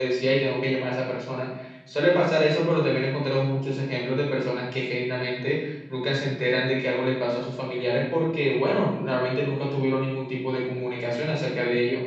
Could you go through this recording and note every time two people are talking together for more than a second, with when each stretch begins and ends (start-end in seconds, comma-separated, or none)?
none